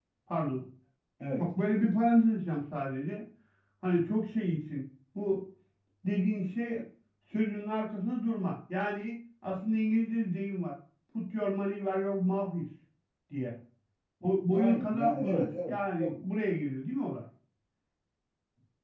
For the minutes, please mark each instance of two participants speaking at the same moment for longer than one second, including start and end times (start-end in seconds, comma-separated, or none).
14.5-16.1